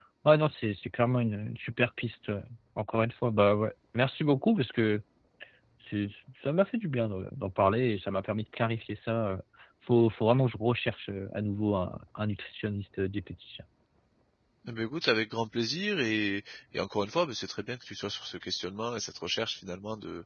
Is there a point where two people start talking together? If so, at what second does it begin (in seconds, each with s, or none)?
none